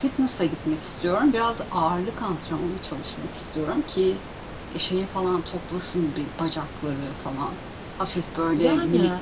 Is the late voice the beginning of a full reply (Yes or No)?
No